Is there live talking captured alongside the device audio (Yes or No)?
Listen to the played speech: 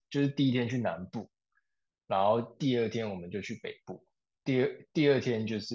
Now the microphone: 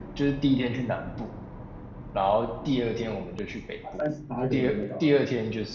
Yes